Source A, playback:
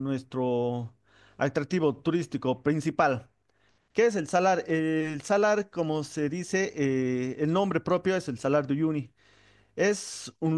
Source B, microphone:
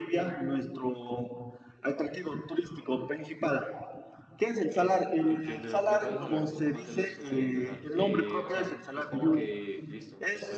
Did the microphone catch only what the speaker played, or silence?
No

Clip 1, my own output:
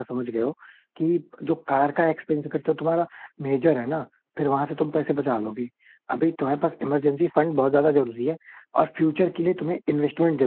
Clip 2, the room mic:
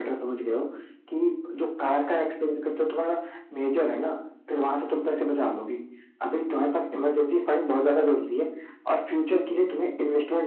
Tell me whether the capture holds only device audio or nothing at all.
Yes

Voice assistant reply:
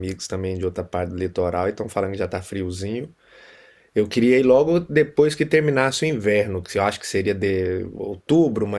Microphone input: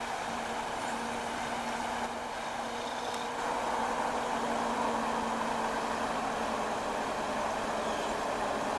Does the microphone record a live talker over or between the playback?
No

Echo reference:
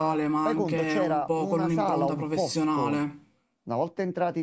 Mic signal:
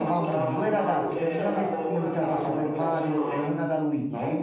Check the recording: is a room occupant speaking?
Yes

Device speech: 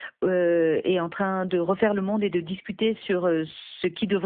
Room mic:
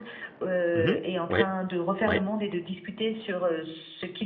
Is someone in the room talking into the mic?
Yes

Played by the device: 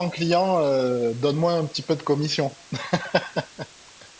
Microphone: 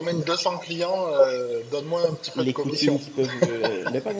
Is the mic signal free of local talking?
No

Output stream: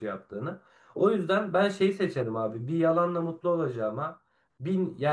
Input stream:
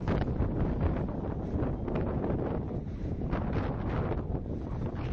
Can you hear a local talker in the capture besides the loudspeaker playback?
No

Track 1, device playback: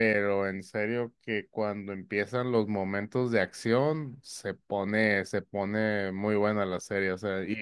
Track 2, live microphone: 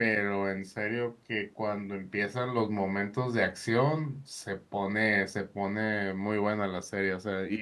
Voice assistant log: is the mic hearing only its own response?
Yes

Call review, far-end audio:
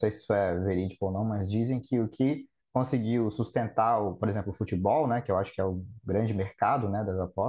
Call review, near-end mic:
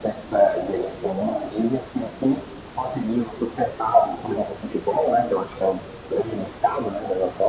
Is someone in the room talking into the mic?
No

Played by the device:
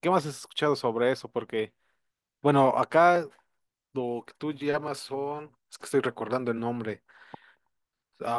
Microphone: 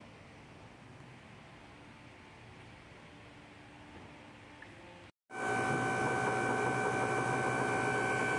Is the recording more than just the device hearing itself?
No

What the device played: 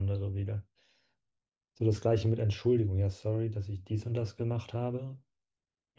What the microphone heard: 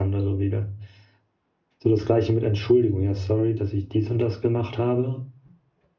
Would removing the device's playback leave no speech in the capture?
Yes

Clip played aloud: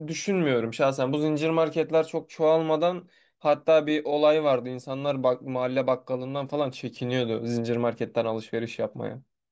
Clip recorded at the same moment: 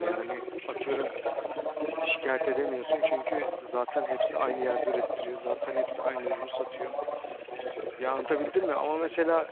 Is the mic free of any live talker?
No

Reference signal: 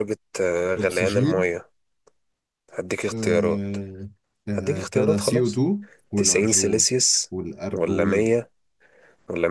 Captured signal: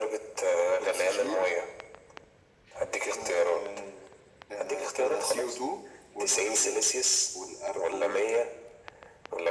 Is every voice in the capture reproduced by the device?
Yes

